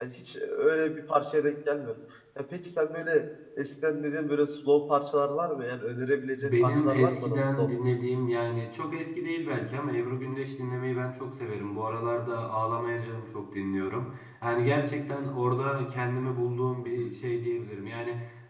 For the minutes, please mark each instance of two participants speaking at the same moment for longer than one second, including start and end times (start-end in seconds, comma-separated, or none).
6.4-7.7